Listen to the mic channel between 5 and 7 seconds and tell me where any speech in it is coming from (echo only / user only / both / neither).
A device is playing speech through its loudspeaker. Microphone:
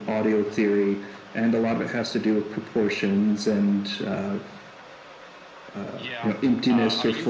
both